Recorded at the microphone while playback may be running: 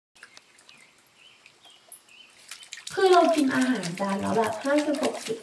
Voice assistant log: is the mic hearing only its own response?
No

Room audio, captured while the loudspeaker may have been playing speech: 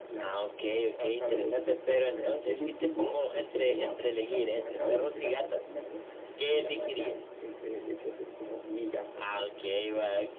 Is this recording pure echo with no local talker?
Yes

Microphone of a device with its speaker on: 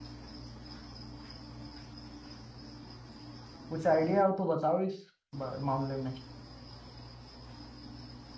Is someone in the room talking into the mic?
Yes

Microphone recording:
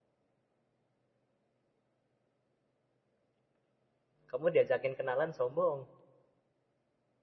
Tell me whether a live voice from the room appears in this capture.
Yes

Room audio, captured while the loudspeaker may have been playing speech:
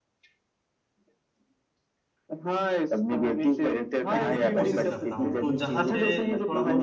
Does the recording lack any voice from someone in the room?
No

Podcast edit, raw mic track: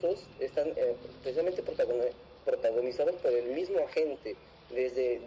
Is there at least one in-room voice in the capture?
No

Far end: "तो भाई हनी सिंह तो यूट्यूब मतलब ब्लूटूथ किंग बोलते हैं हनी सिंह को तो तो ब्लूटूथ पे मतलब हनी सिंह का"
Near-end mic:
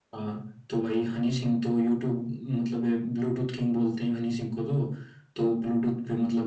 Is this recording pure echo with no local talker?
Yes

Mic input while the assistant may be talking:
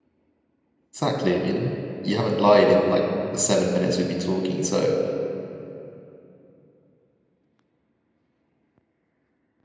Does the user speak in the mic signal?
Yes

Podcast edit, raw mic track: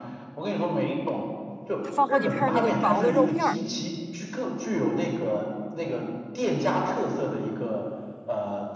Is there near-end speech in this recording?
Yes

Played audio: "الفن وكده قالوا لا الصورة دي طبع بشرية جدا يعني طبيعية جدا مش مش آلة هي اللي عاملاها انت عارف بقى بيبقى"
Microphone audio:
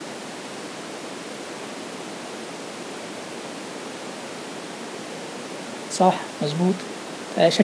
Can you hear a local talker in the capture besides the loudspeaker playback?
Yes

